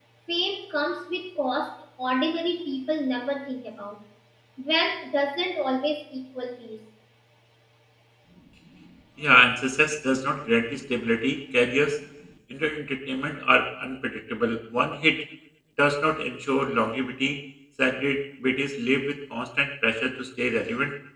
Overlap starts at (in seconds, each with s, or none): none